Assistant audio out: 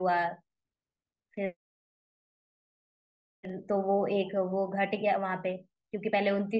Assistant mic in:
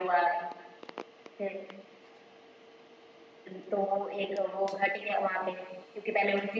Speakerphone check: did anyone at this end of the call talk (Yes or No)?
No